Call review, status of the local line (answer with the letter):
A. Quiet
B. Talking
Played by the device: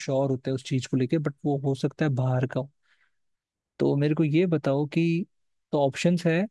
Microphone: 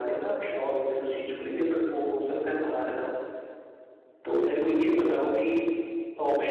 A